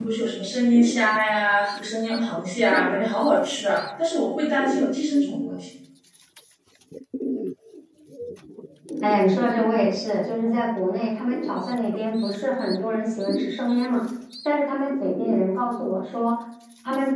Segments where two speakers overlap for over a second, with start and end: none

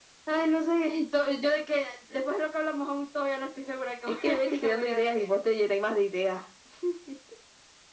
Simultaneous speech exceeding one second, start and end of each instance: 4.1-5.3

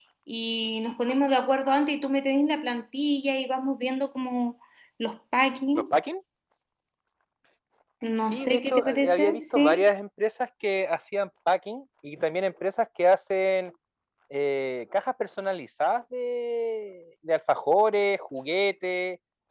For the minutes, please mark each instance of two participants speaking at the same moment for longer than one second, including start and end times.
8.3-9.9

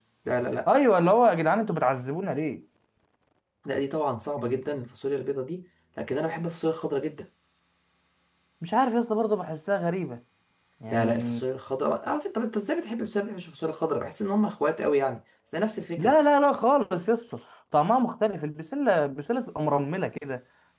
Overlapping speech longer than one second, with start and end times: none

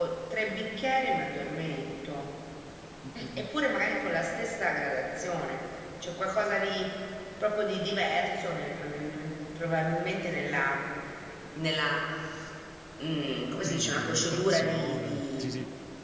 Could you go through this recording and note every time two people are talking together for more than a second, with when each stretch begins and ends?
13.6-15.5

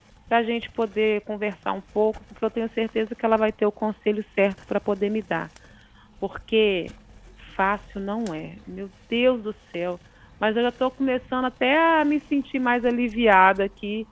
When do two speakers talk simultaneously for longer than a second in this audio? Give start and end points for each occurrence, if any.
none

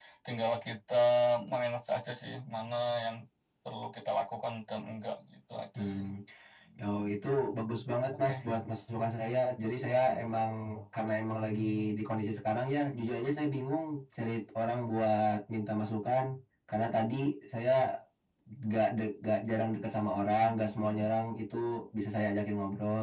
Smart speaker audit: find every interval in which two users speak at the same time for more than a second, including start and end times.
none

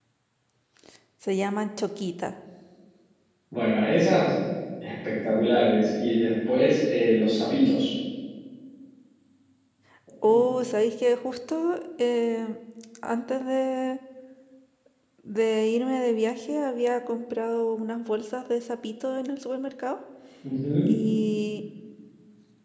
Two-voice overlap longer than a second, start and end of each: none

